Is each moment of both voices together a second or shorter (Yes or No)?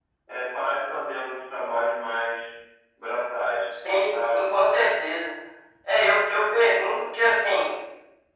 Yes